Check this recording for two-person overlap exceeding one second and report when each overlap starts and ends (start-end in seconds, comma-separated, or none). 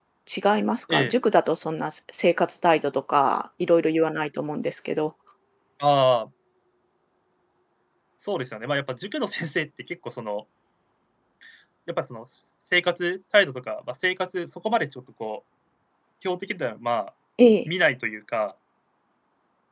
none